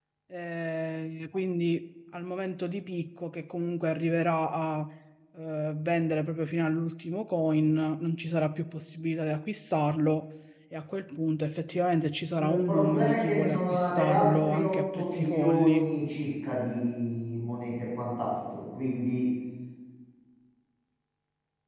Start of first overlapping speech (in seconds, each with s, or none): 12.3 s